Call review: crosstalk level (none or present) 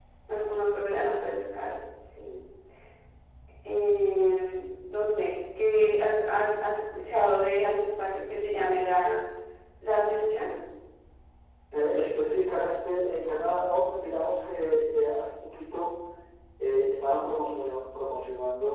none